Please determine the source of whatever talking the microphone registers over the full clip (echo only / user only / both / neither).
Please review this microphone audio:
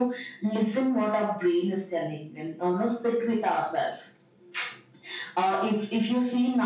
echo only